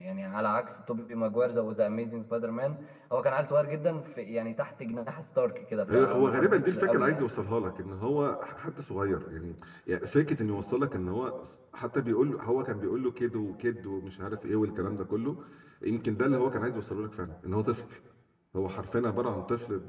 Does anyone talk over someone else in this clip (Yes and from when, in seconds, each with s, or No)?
Yes, from 5.9 s